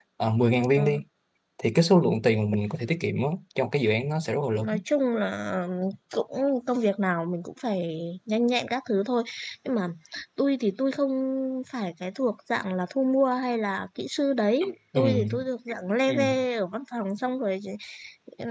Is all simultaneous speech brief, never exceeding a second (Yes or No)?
Yes